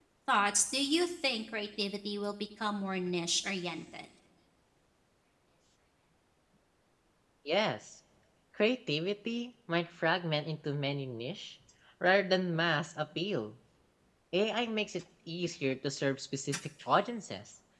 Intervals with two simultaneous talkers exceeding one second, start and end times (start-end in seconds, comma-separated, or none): none